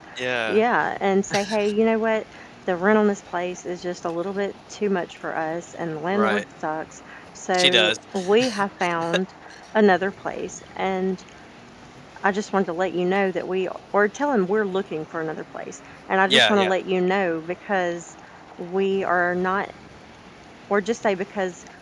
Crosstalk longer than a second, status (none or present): none